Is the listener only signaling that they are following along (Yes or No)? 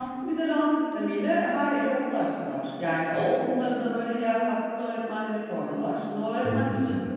Yes